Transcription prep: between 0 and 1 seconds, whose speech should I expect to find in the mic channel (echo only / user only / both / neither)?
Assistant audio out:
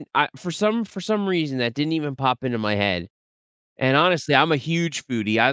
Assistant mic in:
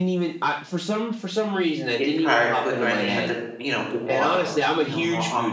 echo only